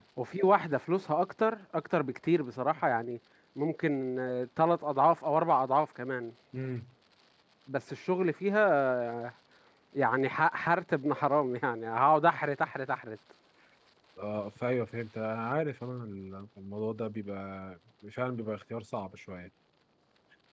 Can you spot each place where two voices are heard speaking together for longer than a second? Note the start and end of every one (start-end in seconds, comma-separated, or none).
none